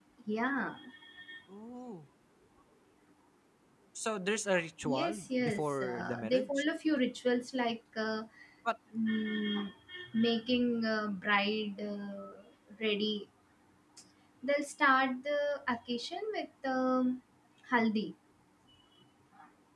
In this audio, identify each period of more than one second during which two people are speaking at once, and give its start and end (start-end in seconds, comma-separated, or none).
4.8-6.5